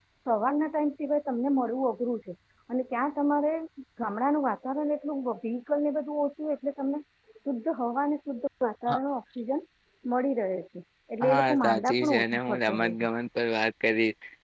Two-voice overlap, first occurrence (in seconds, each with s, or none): 11.2 s